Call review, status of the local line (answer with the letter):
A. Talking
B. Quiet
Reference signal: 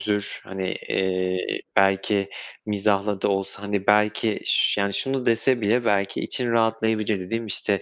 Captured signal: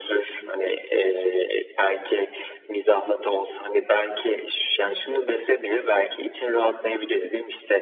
A